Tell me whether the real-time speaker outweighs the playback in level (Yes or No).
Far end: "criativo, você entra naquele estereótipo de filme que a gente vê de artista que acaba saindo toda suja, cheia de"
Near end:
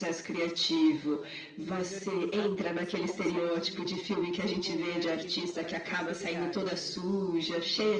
No